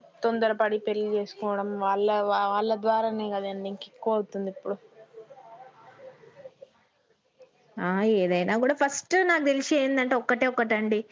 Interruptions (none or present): none